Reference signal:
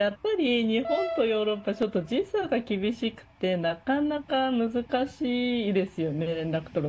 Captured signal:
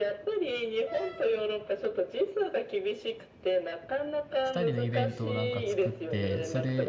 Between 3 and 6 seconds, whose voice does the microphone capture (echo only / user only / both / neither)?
both